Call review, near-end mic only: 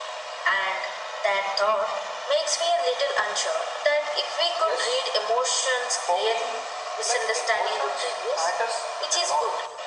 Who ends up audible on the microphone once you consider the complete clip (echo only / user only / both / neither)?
echo only